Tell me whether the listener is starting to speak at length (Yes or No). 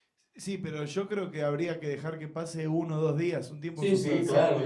Yes